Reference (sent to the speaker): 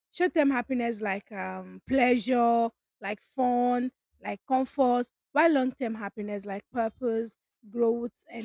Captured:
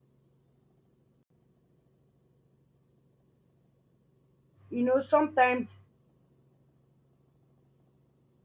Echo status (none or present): none